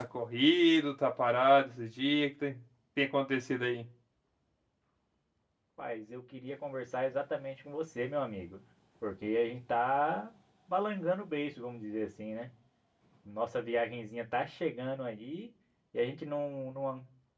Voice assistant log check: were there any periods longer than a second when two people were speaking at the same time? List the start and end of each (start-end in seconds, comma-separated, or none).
none